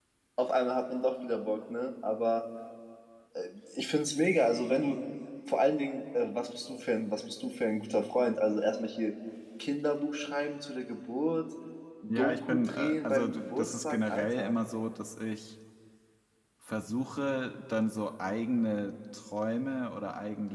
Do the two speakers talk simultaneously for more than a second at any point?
Yes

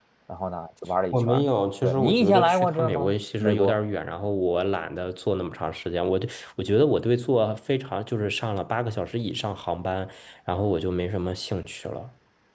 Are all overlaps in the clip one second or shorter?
No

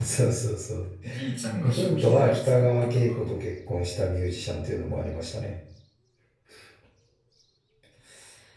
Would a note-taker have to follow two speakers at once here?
Yes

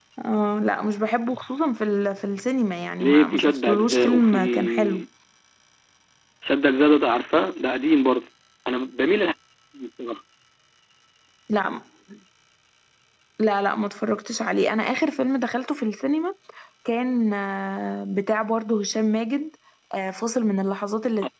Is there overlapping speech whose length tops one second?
Yes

